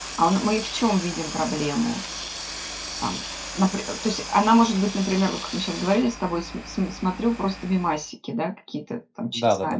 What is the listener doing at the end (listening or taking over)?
taking over